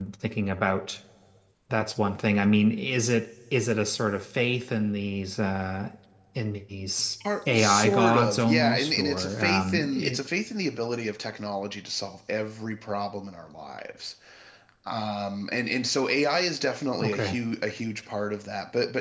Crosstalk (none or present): present